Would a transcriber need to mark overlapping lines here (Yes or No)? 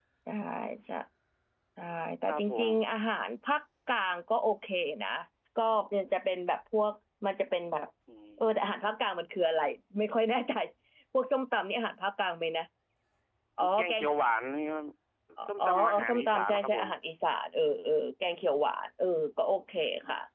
Yes